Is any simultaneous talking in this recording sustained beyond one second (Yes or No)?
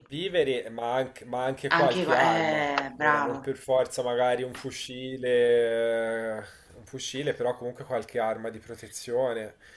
Yes